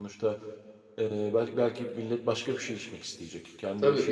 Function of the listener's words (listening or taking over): taking over